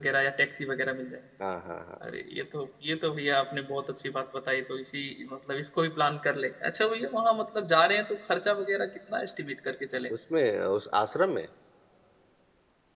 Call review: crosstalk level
none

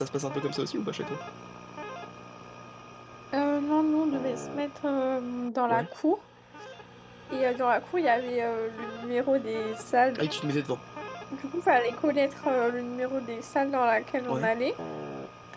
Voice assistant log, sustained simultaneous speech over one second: none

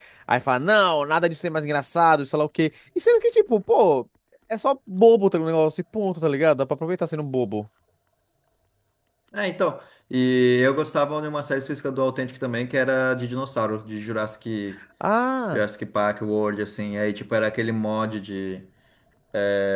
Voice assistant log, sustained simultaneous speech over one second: none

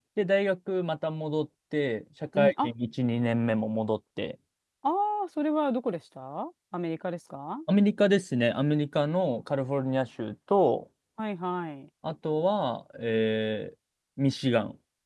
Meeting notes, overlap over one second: none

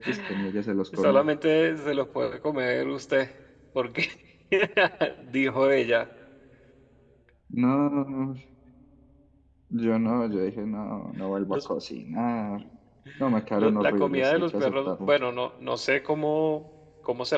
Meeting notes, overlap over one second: present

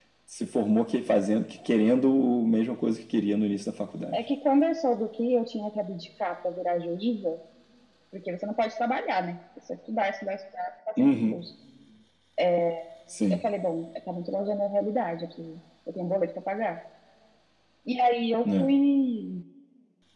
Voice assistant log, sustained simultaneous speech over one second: none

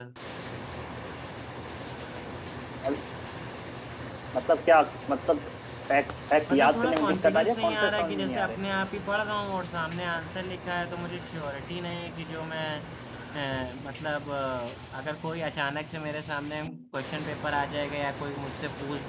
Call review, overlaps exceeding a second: present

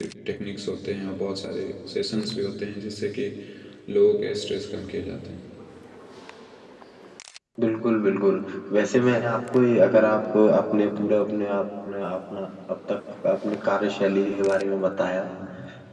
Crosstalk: none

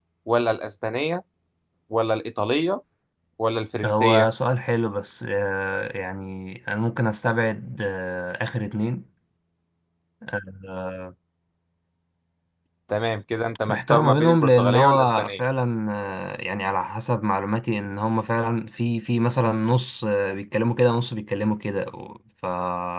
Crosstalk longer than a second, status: present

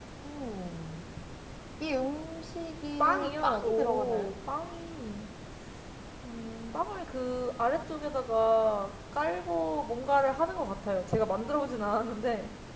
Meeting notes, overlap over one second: present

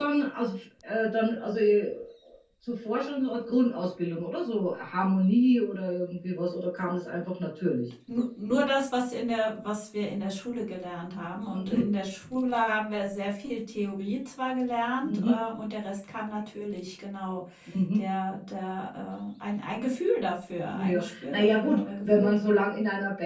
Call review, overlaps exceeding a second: present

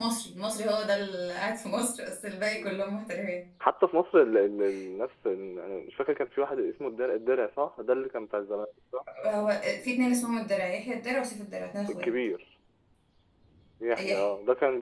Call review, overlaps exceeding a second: none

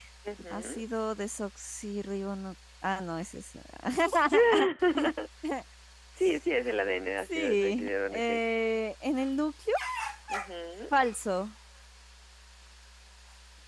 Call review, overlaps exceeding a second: present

